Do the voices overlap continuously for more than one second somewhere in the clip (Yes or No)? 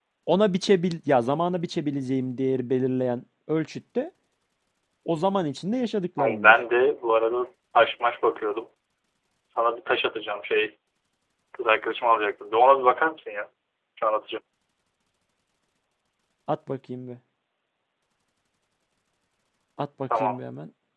No